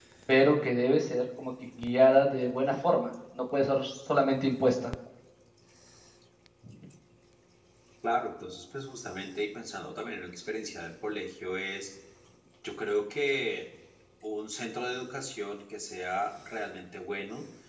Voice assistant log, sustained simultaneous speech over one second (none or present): none